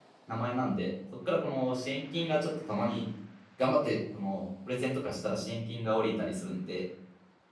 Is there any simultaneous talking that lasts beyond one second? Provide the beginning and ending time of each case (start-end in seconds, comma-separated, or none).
none